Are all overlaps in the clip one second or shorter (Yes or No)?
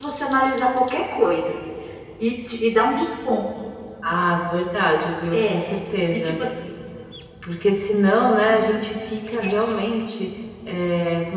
Yes